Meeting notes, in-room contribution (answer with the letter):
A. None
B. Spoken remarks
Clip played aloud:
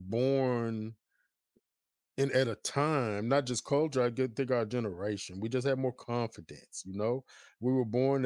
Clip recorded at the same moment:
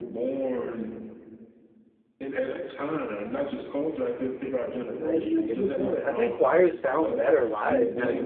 B